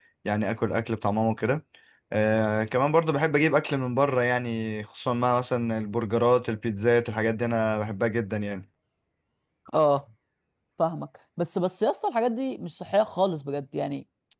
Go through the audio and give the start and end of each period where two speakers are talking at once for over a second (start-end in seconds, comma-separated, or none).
none